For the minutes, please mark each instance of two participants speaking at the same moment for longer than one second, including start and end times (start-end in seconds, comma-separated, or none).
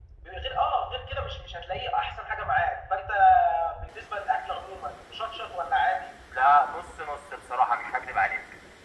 none